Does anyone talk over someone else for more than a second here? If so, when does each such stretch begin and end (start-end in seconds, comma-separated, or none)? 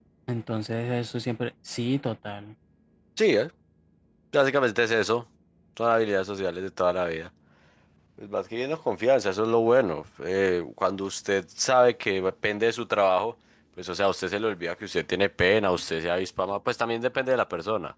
none